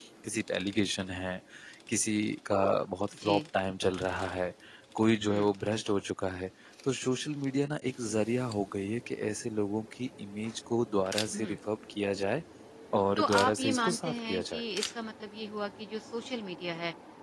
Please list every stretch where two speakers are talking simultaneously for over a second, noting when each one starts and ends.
13.2-14.6

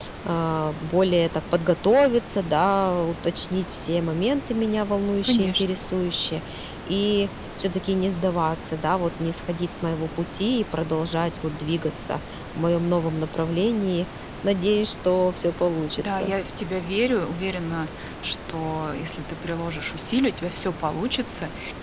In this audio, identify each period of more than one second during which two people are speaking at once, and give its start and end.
none

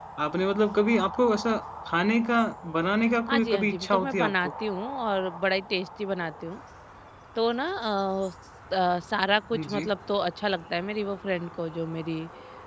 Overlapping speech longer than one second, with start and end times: 3.3-4.5

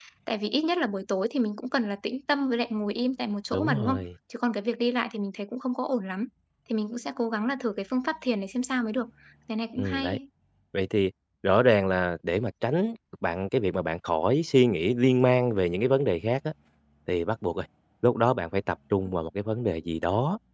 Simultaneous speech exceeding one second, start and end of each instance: none

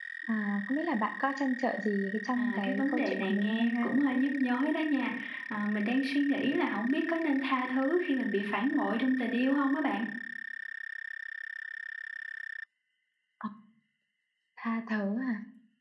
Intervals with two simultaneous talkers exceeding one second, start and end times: 2.4-3.9

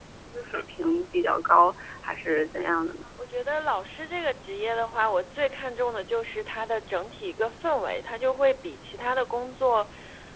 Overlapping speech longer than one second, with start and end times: none

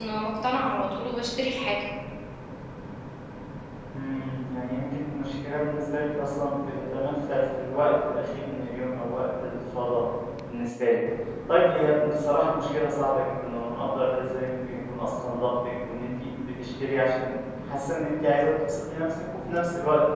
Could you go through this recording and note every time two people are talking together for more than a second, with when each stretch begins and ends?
none

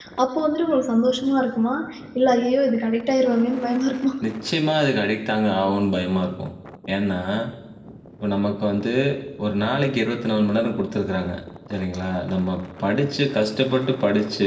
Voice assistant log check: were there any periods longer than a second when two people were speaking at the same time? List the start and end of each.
none

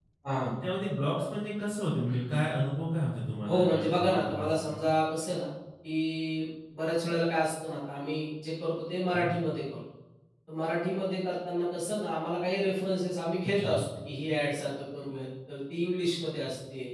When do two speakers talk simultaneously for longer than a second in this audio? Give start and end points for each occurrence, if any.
3.5-4.8

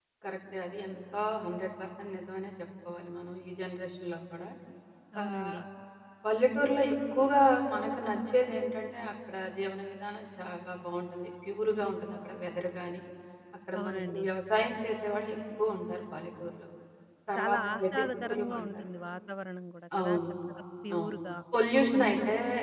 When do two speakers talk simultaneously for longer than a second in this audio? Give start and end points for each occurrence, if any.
17.4-18.7

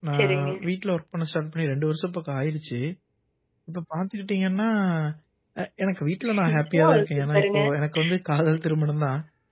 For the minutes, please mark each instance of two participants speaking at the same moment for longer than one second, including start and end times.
6.3-7.6

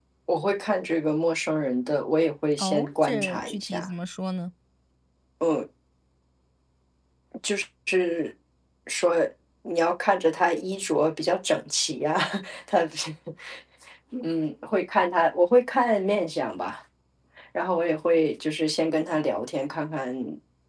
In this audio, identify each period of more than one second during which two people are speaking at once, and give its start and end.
2.6-3.9

